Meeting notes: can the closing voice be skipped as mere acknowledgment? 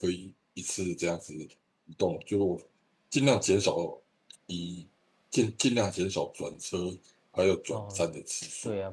No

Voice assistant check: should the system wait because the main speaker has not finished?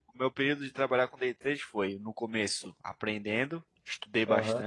Yes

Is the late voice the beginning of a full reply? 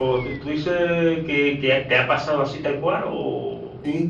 Yes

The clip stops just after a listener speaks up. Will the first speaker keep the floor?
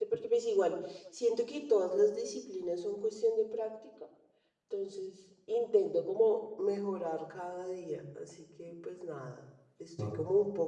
Yes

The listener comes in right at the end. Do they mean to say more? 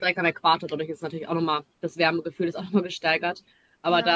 No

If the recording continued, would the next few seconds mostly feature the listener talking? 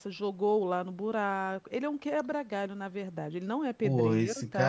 Yes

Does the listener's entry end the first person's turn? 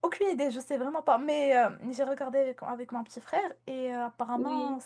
No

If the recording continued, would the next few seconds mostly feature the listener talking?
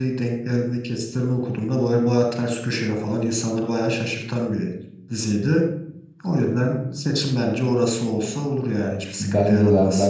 Yes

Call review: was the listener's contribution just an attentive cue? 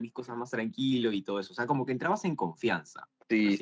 No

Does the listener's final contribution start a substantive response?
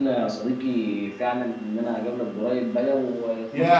Yes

